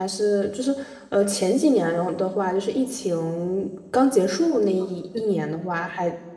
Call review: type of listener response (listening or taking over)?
listening